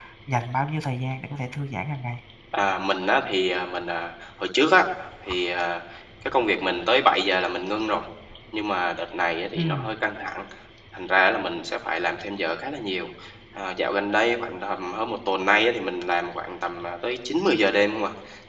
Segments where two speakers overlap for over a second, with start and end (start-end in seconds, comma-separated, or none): none